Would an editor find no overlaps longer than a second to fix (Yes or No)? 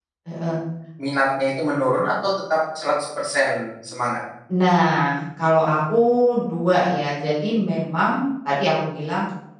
Yes